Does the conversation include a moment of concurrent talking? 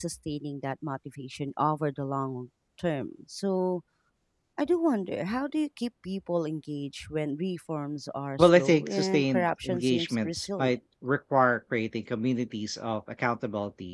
Yes, from 8.4 s

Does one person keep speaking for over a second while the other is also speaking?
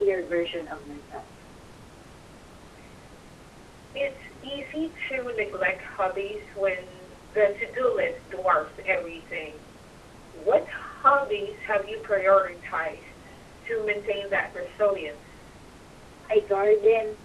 No

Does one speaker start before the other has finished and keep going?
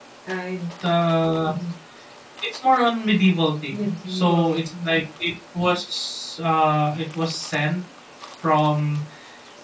Yes, from 3.7 s

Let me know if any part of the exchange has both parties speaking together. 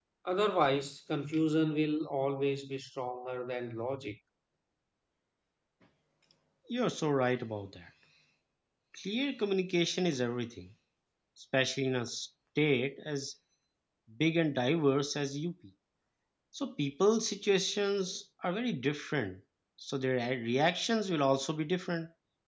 No

